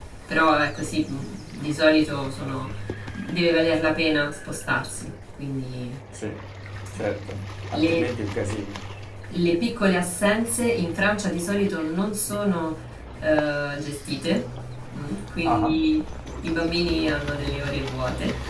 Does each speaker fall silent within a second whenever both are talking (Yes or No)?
Yes